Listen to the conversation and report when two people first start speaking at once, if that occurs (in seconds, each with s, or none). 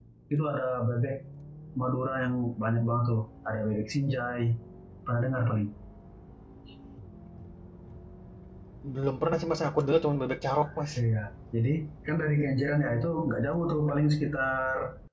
none